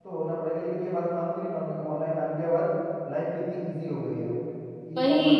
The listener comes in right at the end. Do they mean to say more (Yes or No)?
Yes